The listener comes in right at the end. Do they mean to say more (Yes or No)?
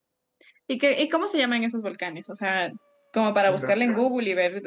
No